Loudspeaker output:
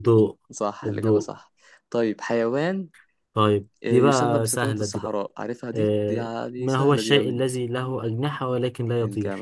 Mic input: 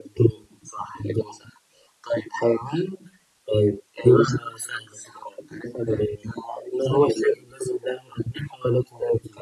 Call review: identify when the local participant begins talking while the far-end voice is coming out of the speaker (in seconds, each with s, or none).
none